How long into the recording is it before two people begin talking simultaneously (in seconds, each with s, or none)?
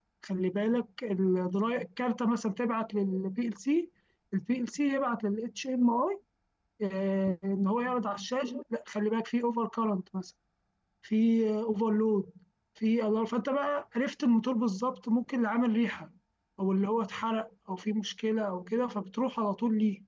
none